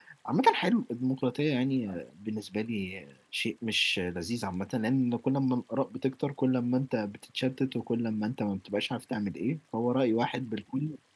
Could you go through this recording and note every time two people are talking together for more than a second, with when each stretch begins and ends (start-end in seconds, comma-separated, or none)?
none